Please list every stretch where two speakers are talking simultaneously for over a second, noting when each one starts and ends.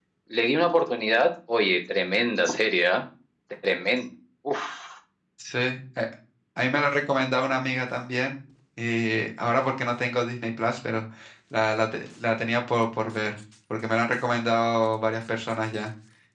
none

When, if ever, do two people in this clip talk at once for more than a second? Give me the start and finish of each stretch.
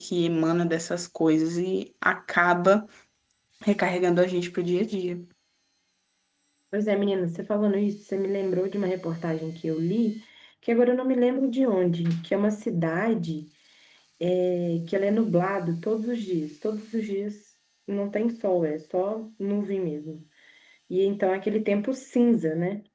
none

